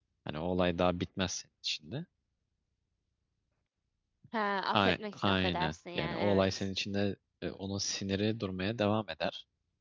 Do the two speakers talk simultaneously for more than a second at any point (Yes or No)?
Yes